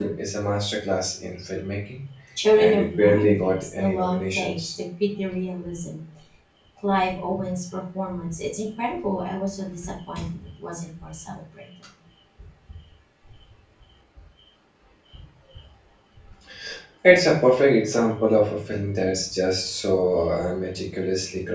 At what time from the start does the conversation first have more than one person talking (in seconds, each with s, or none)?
2.6 s